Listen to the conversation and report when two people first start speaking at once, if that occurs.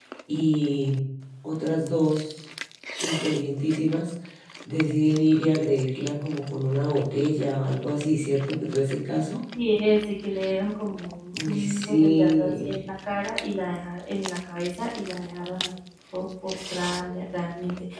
11.3 s

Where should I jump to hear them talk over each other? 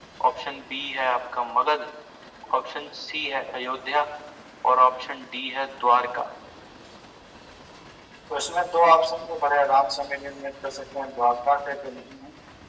none

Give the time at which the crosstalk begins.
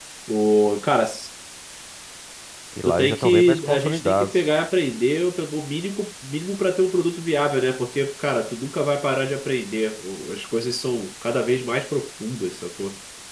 2.9 s

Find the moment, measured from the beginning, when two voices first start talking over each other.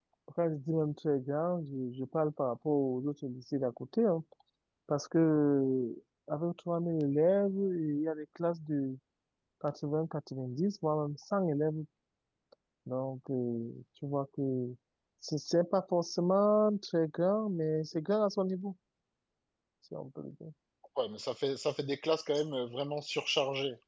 none

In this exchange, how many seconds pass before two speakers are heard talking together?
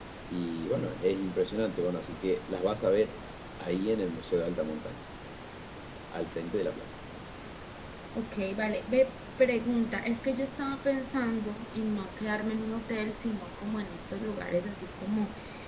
none

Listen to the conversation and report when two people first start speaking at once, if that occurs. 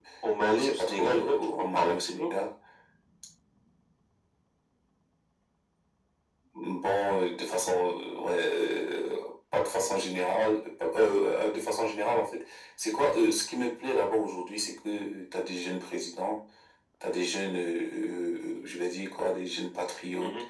0.6 s

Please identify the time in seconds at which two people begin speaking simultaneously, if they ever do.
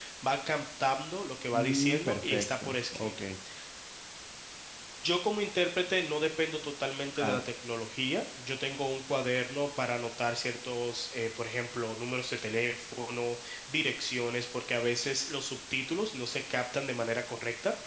1.5 s

